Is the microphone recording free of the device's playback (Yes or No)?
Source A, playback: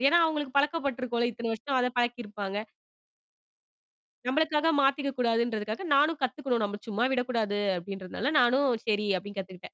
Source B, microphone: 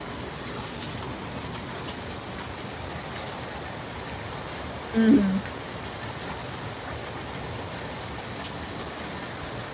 Yes